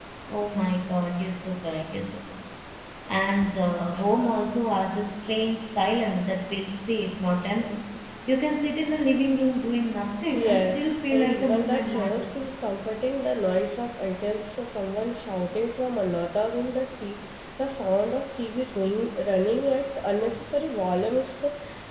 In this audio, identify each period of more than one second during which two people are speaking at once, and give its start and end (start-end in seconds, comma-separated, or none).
10.3-12.5